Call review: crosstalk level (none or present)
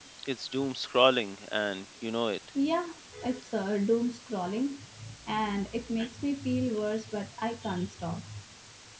none